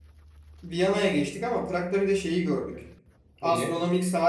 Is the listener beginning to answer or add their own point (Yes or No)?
No